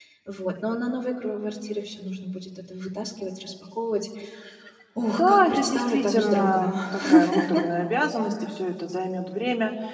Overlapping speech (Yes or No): Yes